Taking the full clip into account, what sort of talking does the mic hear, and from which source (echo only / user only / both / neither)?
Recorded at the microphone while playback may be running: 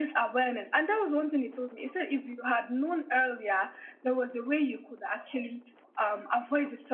echo only